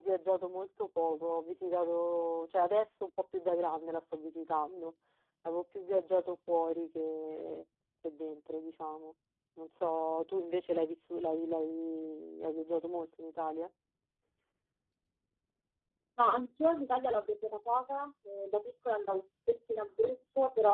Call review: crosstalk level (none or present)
none